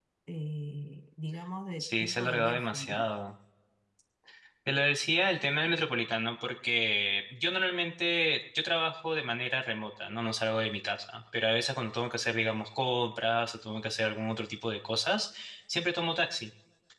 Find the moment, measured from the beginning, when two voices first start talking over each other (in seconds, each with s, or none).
1.8 s